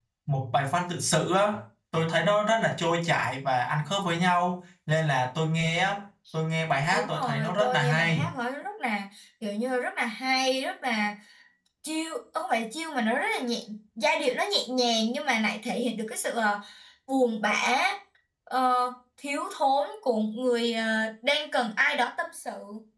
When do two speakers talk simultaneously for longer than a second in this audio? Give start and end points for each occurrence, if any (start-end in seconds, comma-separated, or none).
6.9-8.2